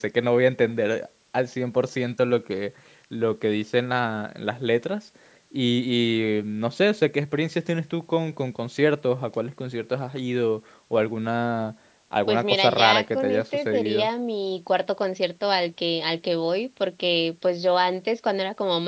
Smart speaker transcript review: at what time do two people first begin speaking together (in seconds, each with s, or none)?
12.3 s